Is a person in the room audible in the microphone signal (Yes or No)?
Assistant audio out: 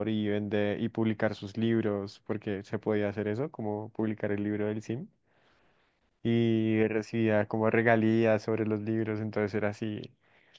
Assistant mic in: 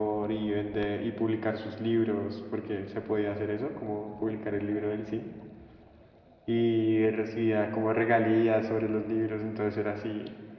No